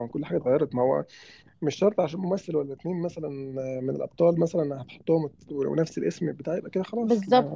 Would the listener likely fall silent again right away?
No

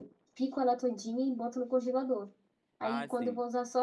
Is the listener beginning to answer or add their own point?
No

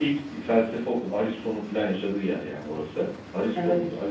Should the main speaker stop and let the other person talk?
No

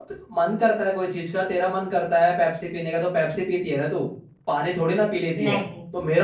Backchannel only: Yes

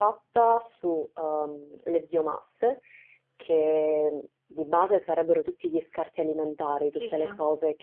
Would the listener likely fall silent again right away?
Yes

